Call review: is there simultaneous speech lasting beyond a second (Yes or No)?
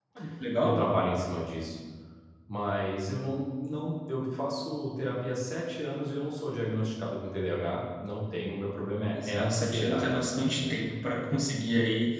Yes